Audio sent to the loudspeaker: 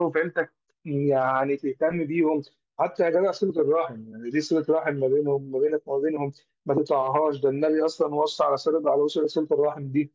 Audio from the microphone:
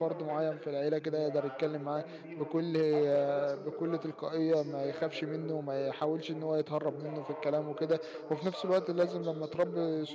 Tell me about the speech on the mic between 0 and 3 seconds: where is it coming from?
both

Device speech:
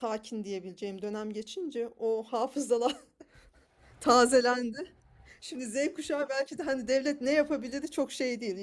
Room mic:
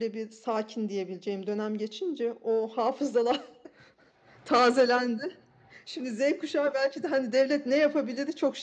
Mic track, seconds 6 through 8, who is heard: echo only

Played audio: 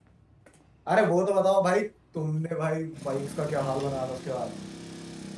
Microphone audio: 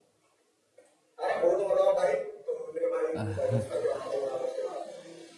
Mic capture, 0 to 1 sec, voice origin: neither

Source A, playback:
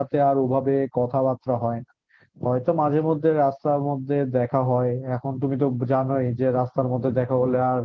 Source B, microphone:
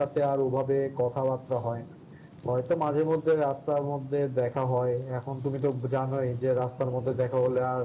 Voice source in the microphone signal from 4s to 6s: echo only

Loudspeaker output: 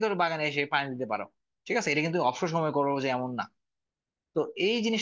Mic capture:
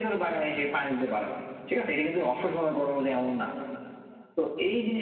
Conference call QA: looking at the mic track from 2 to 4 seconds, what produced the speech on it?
echo only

